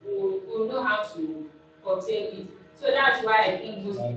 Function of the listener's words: listening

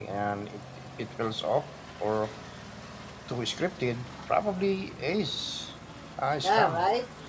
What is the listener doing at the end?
taking over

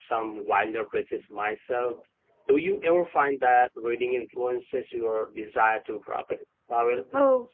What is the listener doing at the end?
taking over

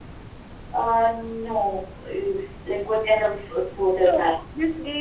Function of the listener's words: taking over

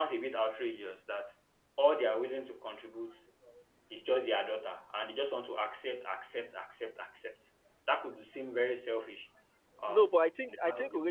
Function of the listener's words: taking over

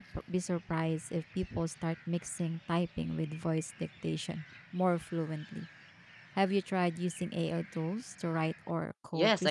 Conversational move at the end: taking over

